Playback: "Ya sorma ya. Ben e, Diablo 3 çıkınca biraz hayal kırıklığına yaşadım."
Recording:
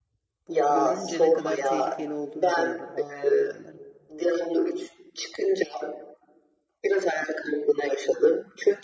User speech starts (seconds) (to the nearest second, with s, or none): 0 s